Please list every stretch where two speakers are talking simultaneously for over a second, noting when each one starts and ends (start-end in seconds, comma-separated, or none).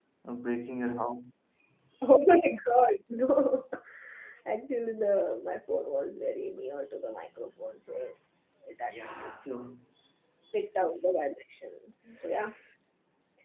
none